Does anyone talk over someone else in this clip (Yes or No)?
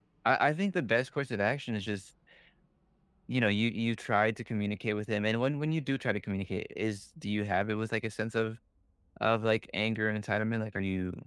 No